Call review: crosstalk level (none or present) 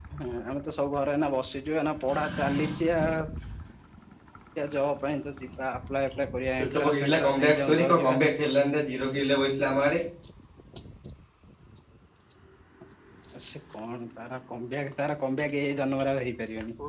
present